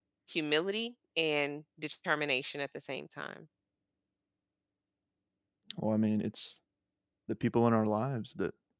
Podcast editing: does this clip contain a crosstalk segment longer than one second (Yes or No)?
No